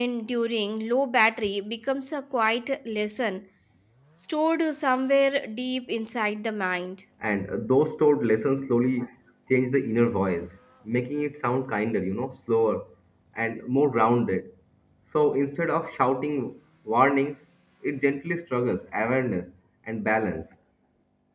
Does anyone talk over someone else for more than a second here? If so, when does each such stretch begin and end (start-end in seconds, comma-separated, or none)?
none